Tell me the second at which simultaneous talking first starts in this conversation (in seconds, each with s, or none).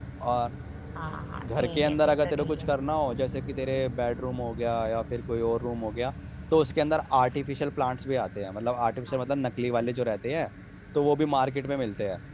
1.4 s